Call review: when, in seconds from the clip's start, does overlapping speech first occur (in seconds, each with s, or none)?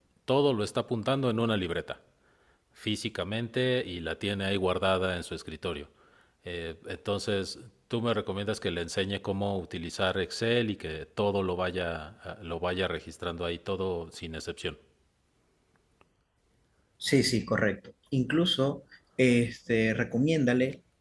none